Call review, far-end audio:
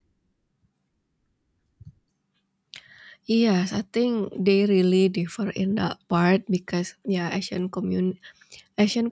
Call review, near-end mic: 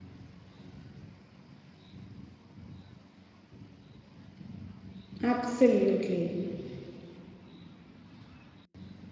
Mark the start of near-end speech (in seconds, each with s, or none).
5.2 s